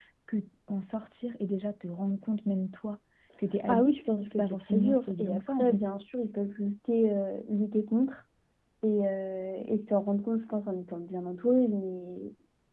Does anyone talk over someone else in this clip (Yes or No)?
Yes